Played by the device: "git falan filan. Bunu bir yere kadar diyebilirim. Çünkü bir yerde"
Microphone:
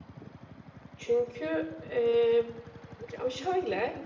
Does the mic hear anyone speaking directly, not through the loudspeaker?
Yes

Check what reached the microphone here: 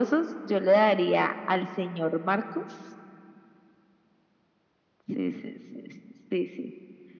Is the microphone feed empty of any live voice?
Yes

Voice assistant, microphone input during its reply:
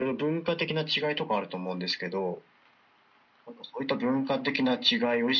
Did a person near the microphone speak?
No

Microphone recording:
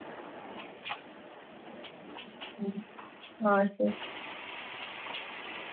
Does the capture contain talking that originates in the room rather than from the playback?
Yes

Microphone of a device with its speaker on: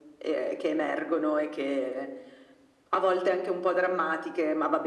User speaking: No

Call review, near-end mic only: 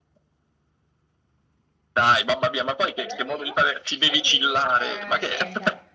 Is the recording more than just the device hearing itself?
Yes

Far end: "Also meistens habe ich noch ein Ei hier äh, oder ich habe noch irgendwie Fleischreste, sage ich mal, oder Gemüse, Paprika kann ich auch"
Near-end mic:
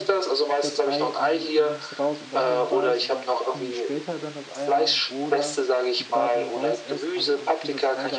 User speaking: Yes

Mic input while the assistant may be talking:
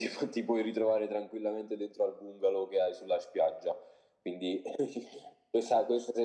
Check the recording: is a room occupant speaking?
No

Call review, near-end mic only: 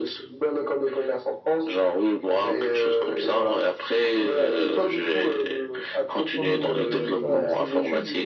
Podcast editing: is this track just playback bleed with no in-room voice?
No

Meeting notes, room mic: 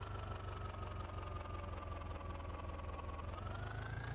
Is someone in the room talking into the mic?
No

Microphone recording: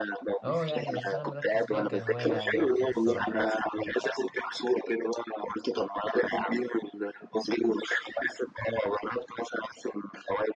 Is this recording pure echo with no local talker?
No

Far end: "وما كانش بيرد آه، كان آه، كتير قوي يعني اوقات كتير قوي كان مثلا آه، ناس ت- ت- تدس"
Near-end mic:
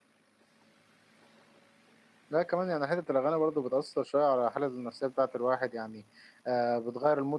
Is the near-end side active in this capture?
Yes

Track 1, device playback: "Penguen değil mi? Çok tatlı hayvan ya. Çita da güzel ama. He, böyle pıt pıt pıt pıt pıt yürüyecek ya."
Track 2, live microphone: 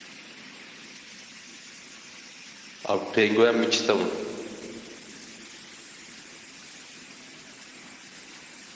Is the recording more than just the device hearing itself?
Yes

